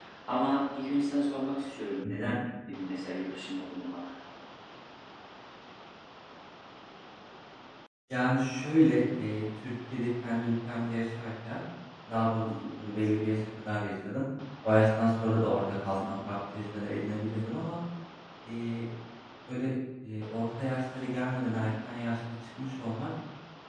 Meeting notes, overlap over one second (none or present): none